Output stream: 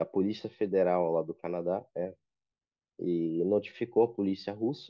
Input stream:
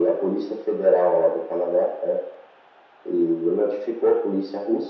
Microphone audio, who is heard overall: echo only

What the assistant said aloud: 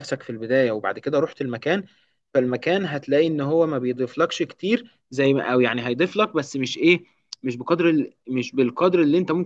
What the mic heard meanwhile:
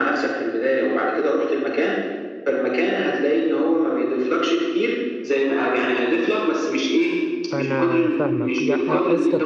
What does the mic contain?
both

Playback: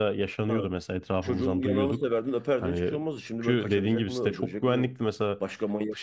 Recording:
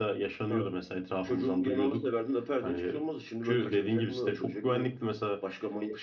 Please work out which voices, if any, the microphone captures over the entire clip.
echo only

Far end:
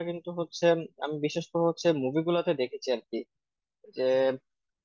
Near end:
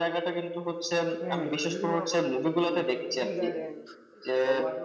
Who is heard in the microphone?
both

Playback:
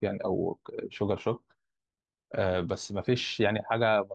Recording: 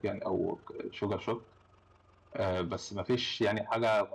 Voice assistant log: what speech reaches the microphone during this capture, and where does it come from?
echo only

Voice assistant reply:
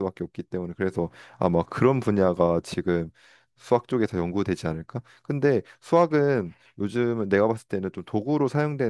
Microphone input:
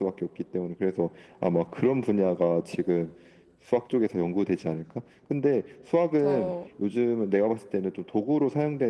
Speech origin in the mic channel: both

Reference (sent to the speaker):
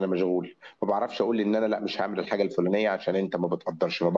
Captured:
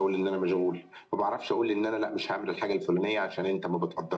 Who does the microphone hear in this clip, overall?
echo only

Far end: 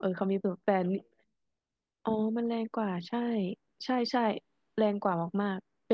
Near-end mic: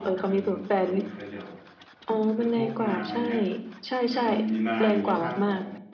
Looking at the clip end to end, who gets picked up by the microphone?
both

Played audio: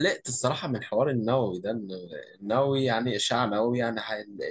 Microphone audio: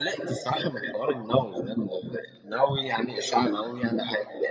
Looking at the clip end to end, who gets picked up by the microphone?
echo only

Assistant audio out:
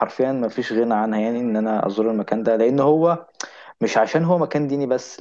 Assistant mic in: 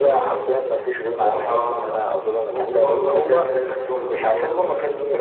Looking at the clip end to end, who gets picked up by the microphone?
both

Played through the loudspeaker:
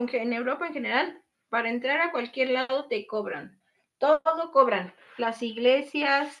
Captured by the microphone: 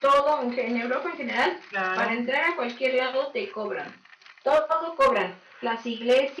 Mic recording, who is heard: both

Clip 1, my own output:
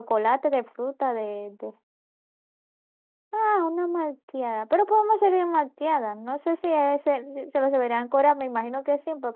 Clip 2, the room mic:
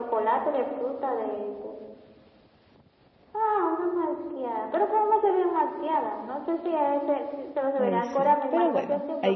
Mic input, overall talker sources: both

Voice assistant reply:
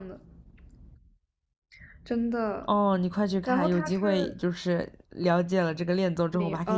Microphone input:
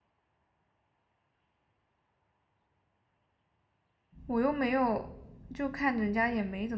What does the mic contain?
user only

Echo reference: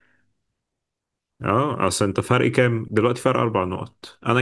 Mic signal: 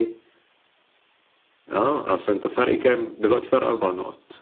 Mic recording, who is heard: echo only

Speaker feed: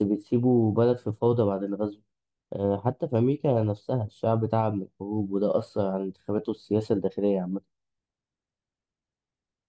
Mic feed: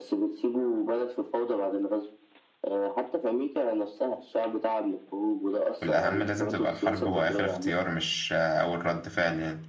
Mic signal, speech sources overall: both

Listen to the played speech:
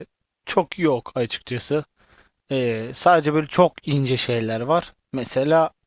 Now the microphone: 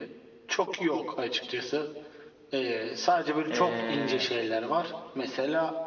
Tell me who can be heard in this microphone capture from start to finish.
both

